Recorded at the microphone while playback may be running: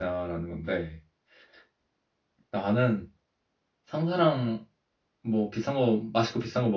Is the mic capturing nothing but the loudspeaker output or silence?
No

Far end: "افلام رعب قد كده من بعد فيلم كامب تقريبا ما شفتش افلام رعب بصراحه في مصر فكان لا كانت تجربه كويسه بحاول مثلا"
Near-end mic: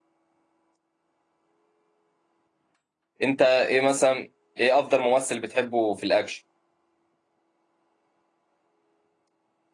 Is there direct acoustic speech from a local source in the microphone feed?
Yes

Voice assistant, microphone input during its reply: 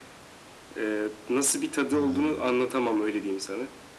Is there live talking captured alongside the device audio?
Yes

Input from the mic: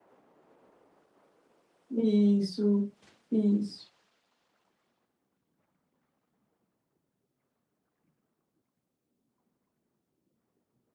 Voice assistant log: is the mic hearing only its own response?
No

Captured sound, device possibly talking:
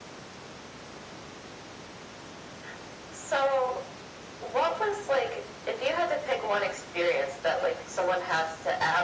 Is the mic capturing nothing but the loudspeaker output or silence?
Yes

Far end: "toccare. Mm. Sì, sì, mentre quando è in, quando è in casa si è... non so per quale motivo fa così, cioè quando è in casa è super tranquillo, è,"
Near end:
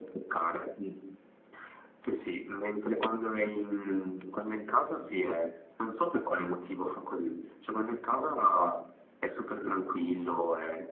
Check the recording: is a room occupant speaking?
No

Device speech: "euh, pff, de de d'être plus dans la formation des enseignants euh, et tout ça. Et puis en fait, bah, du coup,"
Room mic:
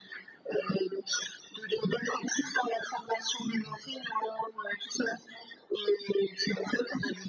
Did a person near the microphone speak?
No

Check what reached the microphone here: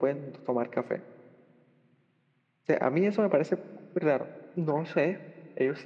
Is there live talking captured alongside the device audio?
No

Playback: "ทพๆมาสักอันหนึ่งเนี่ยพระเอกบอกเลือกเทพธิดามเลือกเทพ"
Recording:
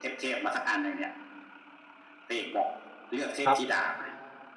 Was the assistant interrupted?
Yes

